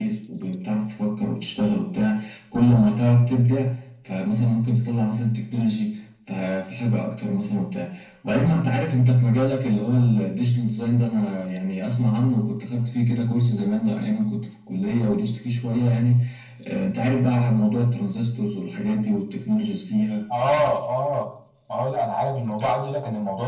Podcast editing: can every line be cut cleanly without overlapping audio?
Yes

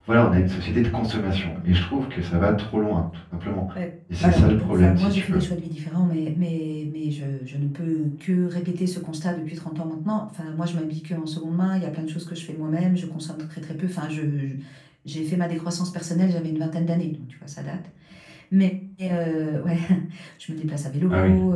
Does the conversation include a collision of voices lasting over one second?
Yes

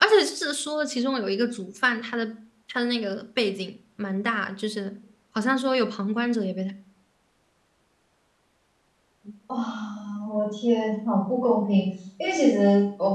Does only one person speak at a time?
Yes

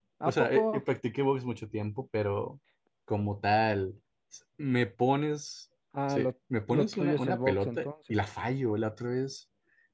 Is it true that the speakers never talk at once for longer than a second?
No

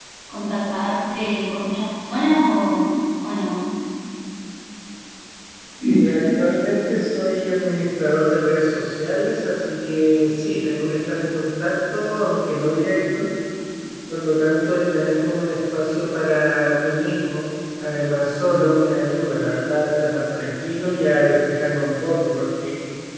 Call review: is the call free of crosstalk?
Yes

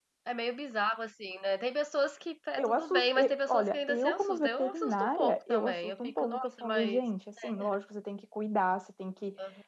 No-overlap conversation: No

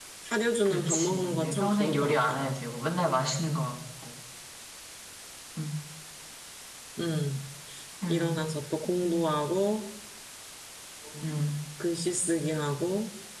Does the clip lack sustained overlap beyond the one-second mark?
No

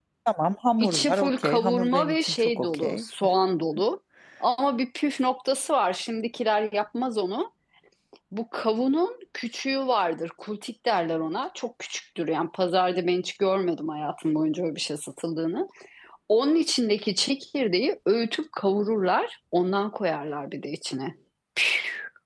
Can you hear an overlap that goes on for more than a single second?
Yes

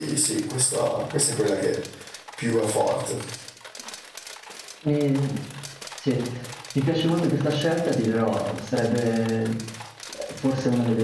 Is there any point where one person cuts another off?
No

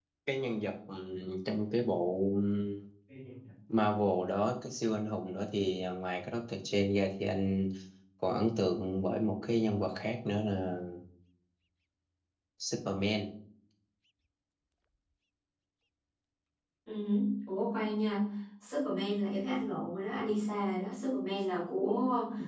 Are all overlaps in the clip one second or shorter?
Yes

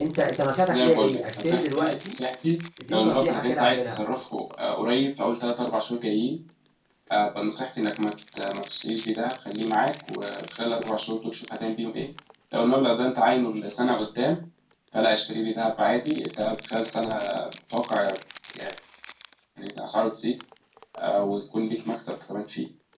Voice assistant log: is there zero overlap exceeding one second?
No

